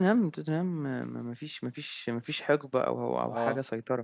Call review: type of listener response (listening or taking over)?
listening